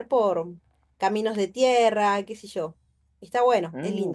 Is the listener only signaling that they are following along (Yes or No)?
No